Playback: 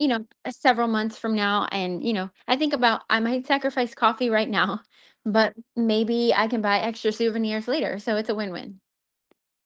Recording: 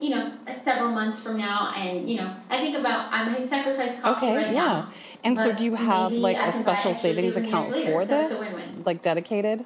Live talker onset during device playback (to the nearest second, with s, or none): 4 s